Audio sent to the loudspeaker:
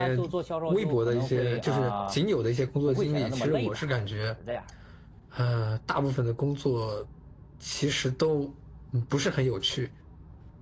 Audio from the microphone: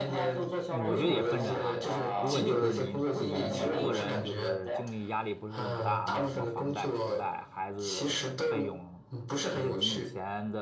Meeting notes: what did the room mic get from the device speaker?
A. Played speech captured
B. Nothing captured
A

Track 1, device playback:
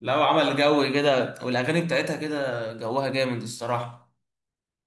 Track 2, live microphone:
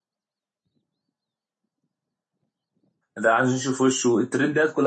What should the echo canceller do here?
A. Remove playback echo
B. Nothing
B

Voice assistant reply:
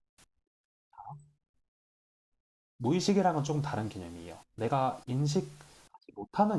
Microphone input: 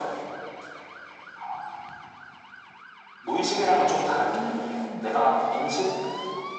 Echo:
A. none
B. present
B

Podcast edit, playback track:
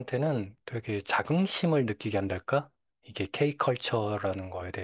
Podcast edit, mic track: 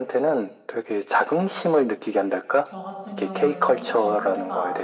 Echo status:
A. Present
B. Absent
A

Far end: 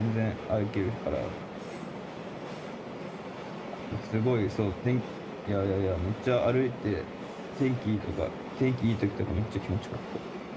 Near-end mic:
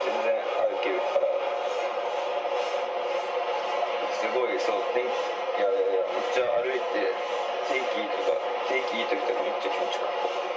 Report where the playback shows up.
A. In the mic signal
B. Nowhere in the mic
A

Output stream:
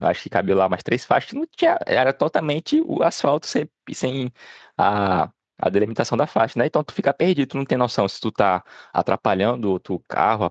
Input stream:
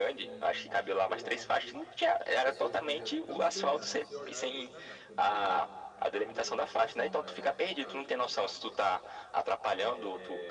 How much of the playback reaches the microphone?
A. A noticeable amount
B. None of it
A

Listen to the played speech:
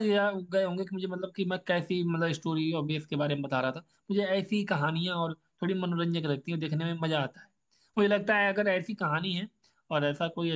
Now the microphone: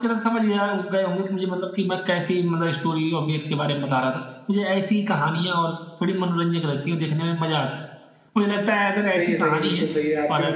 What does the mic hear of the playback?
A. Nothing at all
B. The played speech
B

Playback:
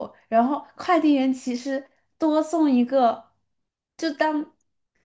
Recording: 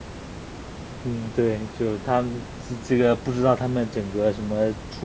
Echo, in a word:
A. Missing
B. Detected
A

